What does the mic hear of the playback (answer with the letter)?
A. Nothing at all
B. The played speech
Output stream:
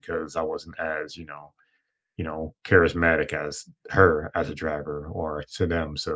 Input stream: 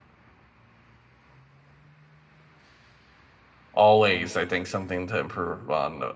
A